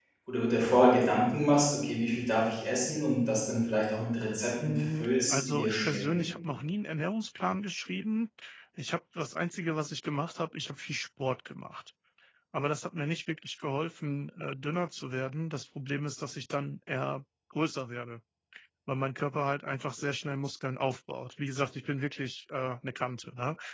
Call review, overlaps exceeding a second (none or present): present